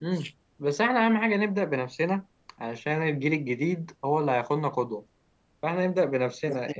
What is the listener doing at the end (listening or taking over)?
listening